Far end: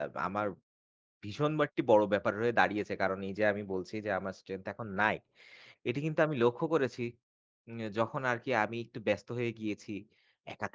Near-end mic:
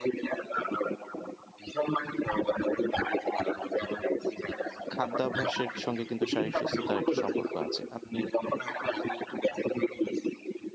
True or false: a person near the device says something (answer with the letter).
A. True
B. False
A